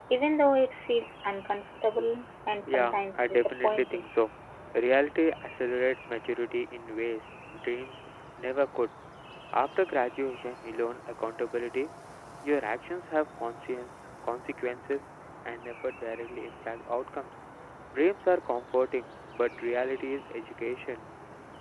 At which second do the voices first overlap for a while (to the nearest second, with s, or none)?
3 s